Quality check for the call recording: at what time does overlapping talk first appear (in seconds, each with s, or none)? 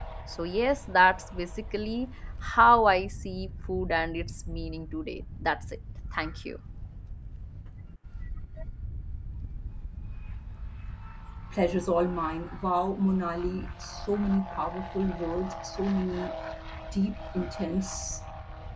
none